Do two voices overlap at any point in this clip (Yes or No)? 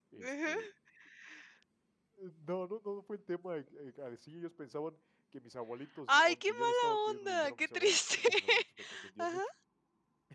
Yes